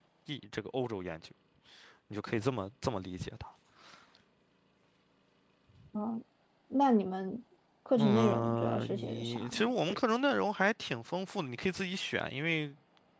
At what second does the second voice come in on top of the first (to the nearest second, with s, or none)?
8 s